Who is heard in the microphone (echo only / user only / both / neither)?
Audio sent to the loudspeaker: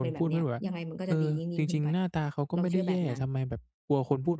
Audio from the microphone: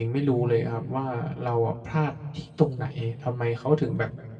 user only